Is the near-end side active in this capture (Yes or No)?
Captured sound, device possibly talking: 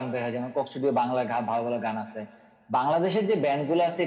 No